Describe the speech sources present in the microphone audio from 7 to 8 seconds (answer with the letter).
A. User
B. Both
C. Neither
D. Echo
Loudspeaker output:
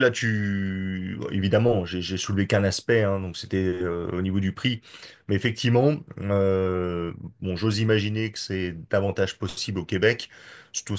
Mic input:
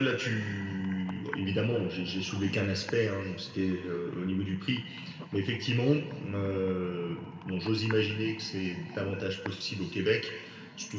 D